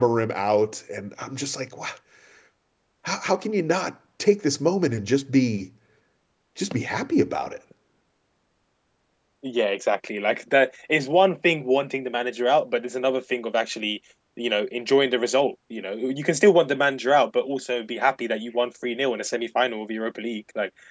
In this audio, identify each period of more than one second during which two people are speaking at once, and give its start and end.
none

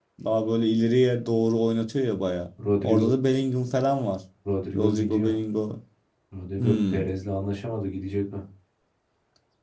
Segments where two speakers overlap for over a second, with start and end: none

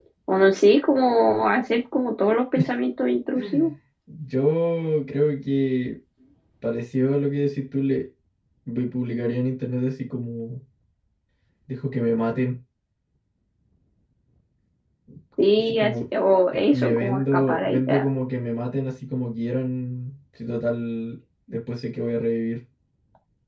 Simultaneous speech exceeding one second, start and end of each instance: 16.5-18.0

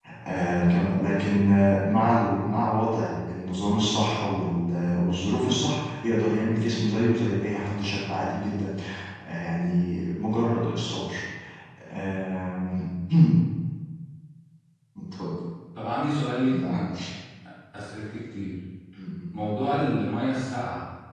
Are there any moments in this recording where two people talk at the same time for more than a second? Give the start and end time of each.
none

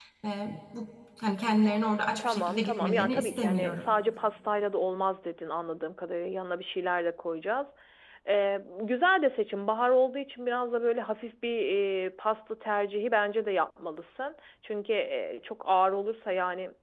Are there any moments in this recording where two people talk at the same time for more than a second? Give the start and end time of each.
2.2-3.9

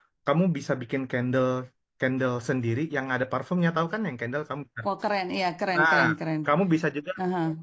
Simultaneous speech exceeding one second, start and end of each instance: none

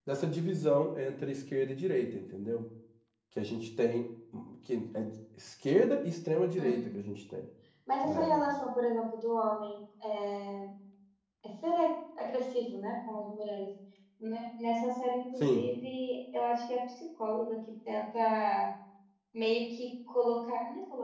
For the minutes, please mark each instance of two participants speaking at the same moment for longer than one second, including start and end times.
none

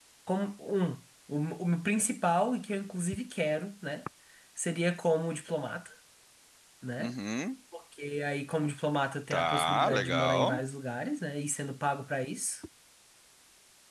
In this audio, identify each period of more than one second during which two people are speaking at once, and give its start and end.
9.3-10.6

